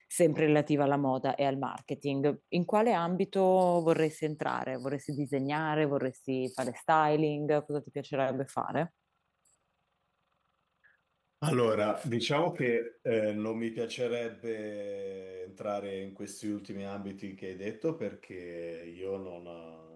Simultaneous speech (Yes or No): No